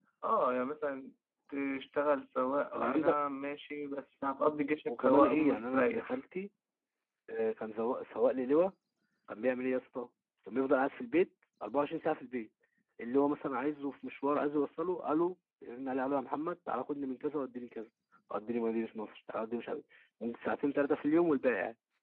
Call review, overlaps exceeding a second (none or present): present